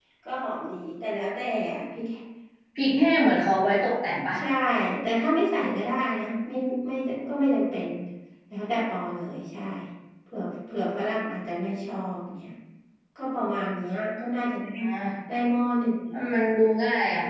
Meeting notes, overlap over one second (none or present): none